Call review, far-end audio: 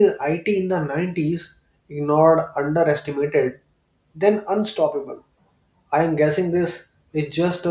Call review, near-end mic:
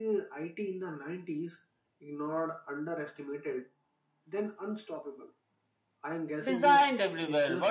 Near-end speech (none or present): present